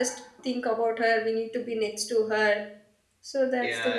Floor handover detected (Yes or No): Yes